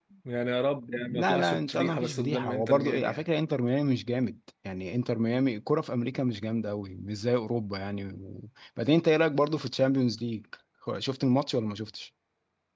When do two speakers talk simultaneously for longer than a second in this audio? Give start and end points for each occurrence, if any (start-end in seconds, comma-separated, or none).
1.0-3.2